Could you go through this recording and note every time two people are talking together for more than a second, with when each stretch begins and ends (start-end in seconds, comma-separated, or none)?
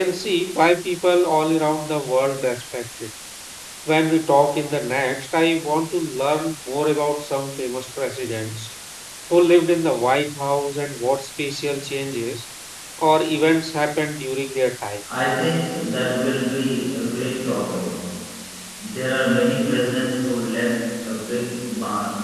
none